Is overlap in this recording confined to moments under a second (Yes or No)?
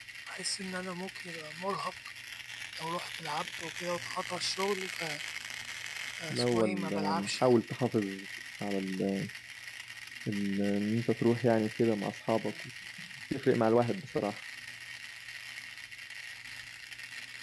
No